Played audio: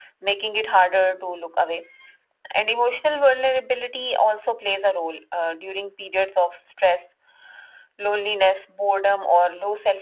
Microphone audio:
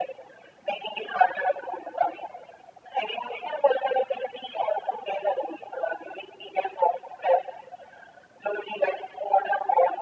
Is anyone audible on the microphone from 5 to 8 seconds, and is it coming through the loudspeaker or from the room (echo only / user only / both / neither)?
echo only